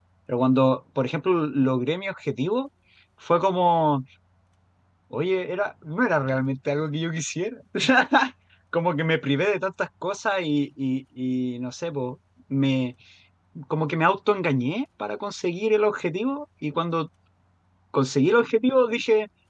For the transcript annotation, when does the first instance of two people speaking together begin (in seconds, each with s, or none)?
none